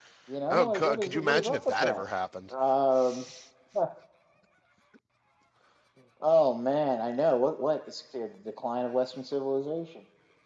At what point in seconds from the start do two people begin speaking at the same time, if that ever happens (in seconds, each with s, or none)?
0.5 s